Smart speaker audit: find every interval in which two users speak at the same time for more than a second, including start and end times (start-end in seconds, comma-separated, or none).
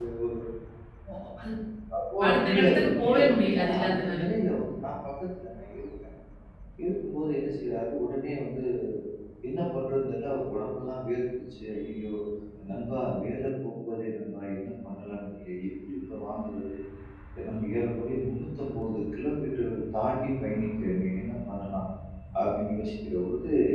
2.3-4.3